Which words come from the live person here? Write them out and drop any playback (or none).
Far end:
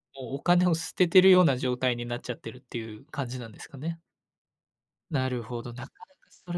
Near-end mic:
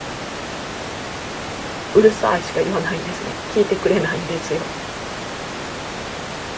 うるさいしか言わないんですね。聞いてくれないんですよ。